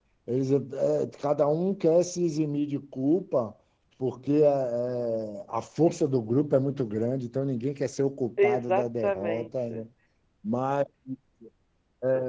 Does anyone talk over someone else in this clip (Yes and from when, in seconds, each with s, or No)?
Yes, from 8.4 s